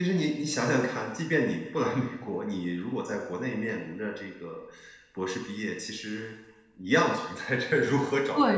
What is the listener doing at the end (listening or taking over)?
taking over